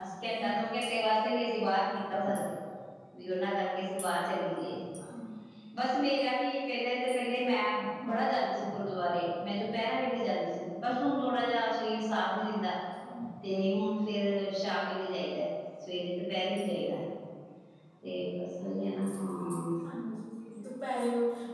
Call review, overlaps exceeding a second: none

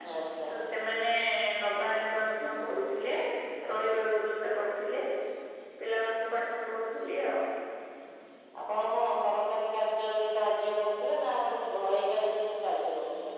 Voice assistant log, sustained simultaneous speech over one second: none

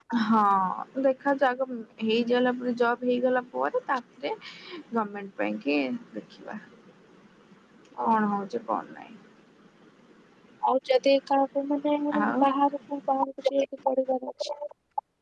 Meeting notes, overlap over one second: none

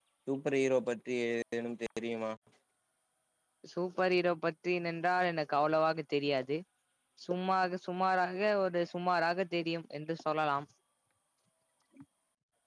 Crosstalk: none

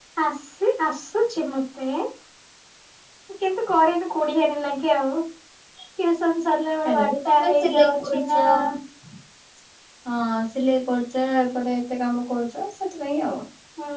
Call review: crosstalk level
present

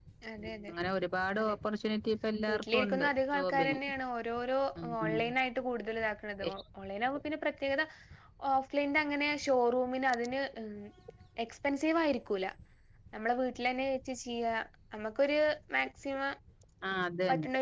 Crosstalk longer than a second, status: present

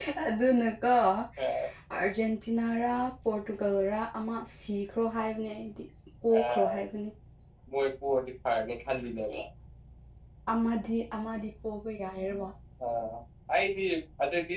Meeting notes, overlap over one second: none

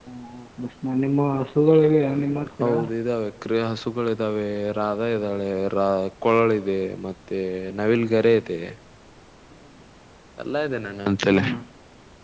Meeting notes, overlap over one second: none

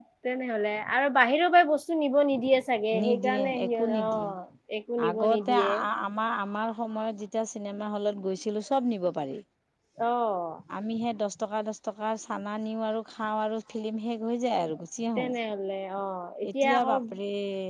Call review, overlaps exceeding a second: present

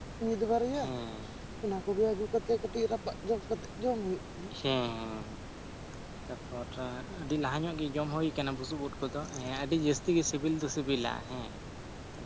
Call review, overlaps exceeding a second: none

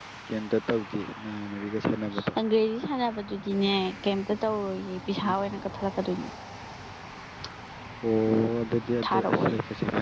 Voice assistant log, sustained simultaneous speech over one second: none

